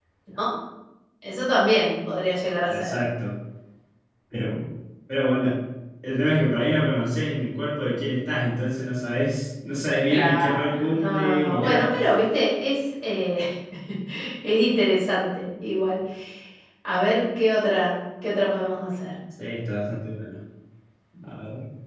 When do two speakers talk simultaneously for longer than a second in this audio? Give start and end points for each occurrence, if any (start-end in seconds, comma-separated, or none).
10.1-11.9